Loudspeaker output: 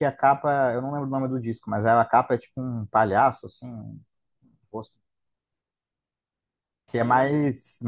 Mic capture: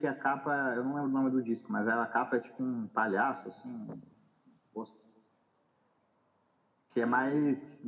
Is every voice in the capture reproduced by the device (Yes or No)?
Yes